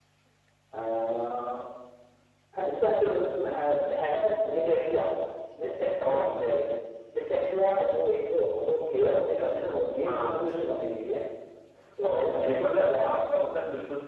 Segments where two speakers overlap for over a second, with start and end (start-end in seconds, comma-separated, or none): 12.1-13.4